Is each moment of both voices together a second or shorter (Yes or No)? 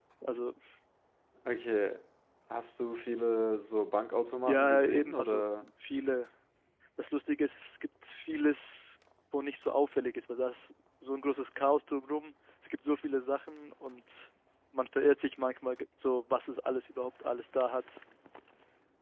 No